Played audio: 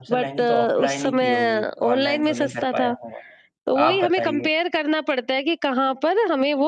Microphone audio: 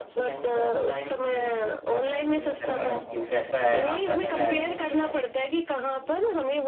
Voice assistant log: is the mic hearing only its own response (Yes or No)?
No